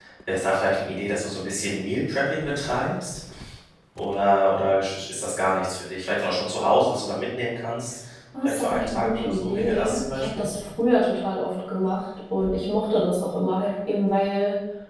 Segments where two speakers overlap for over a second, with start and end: 8.4-10.5

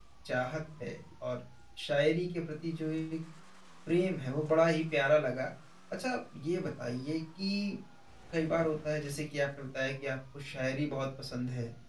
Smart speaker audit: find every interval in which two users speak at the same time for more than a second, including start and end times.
none

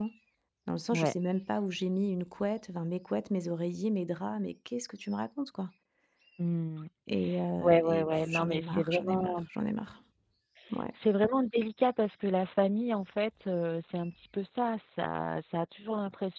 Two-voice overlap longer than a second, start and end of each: 7.6-9.4

